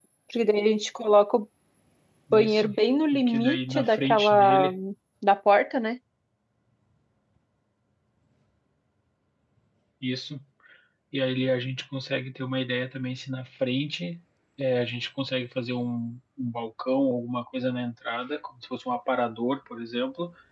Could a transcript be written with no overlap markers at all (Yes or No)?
No